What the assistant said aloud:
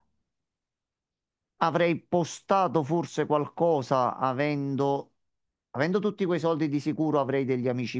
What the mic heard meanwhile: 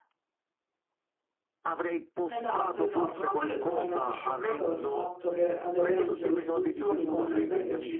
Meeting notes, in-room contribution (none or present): present